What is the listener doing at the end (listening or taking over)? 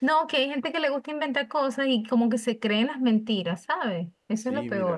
taking over